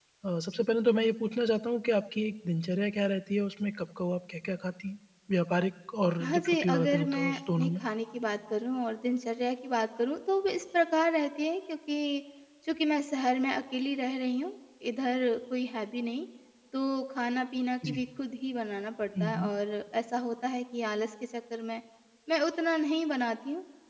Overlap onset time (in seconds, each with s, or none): 6.2 s